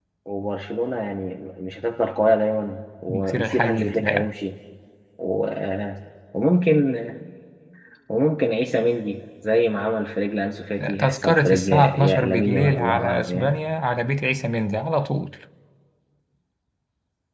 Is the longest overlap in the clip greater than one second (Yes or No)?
Yes